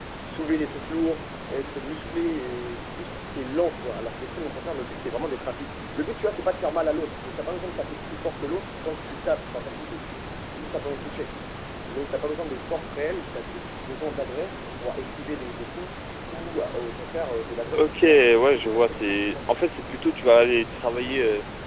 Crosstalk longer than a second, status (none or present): present